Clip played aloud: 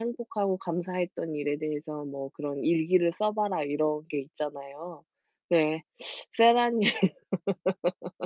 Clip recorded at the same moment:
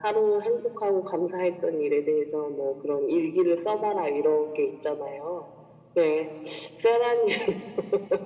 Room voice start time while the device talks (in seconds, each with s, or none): none